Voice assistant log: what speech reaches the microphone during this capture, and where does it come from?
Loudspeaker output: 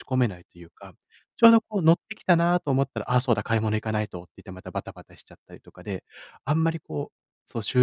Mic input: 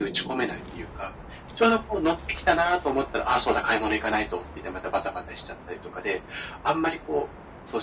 echo only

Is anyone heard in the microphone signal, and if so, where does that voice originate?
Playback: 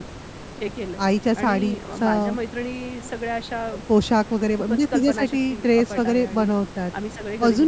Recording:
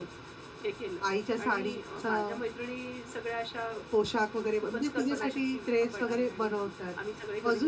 echo only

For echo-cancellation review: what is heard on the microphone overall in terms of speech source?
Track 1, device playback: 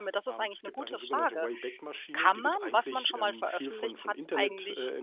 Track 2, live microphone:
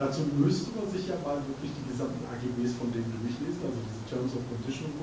user only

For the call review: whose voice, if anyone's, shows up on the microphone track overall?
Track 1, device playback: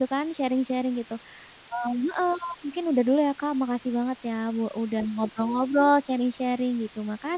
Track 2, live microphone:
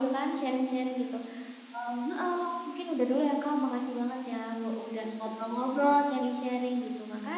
echo only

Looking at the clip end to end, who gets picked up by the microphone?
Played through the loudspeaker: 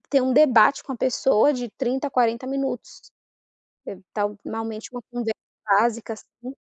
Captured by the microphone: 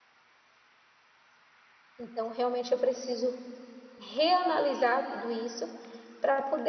user only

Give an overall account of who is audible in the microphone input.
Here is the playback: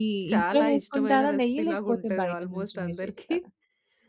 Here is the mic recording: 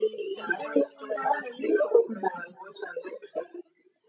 echo only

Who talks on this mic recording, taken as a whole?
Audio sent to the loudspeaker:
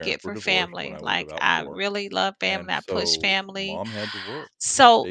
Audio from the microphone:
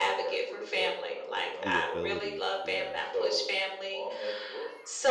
both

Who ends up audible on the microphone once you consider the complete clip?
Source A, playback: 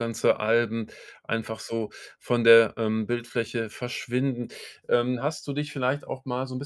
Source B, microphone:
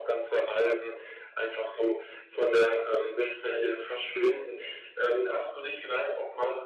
both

